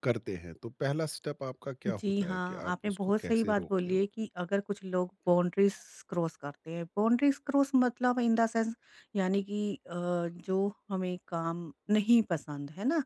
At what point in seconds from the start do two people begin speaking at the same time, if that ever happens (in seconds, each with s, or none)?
1.9 s